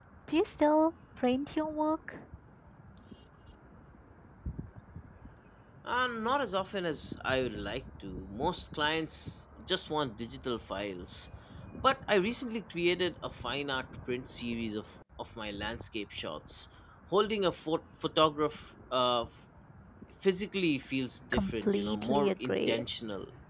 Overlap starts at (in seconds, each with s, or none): 21.3 s